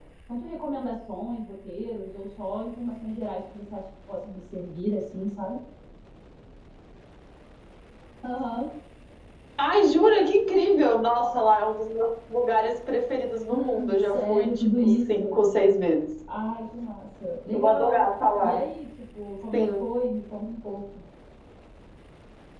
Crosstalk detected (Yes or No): Yes